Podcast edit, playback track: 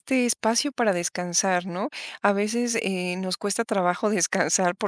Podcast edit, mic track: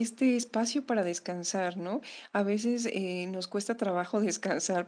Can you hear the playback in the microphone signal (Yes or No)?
Yes